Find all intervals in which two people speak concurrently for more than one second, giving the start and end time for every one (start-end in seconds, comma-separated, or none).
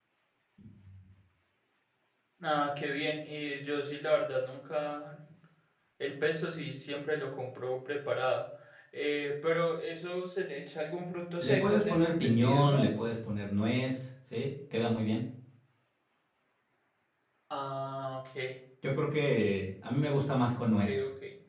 11.4-12.9